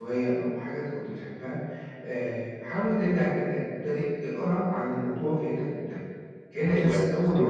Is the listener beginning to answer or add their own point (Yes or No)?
Yes